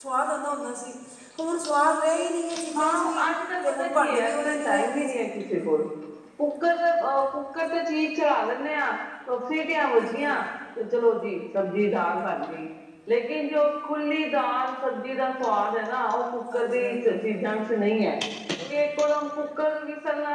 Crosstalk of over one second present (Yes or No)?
Yes